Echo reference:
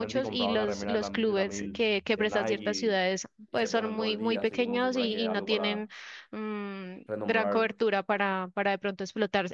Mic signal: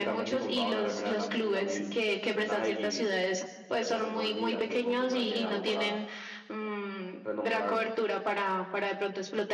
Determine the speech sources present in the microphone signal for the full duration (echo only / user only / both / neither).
echo only